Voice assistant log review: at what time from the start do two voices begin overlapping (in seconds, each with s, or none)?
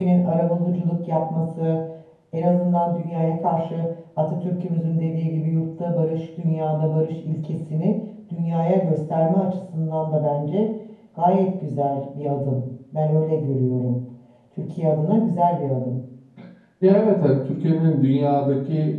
none